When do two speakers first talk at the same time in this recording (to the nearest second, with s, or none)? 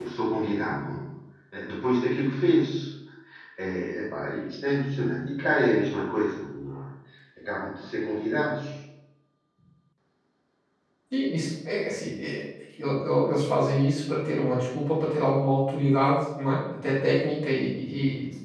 none